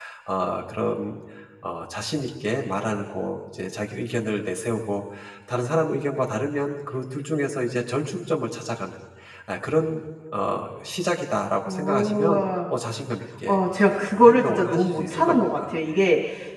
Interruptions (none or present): present